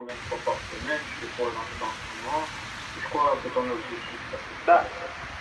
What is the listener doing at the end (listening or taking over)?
taking over